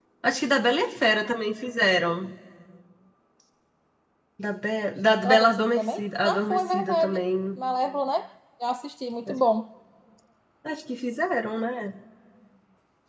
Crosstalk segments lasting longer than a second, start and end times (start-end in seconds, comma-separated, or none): 5.2-7.2